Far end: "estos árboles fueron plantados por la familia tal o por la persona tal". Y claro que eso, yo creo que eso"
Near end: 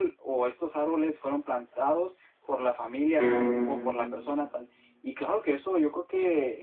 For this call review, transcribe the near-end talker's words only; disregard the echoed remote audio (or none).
Ujú,